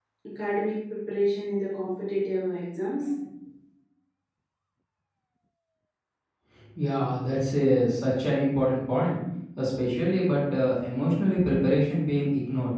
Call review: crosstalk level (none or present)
none